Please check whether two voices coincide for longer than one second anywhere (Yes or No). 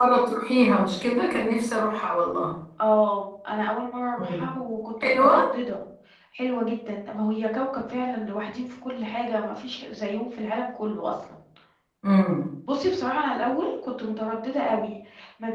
No